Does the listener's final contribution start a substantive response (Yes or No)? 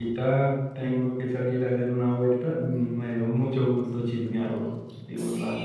Yes